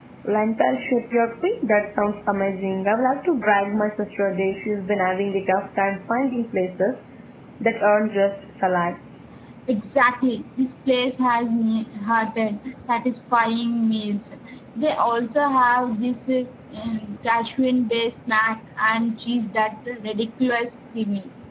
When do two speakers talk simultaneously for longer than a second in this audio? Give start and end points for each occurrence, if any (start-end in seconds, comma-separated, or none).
none